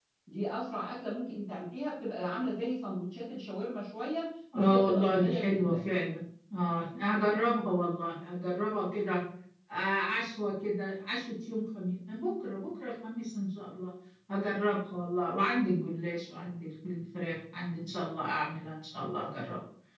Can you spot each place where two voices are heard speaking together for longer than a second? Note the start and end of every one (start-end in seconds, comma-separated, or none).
4.5-5.8